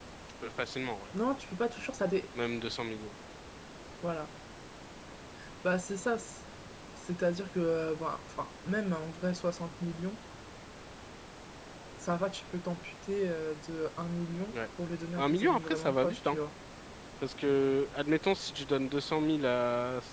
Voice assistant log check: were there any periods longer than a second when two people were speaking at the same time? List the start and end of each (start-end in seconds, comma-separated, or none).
15.2-16.4